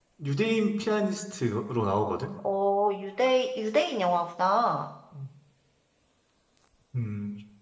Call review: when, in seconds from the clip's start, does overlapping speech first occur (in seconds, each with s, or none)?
none